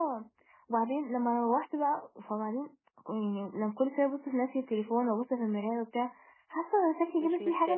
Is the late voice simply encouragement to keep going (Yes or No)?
Yes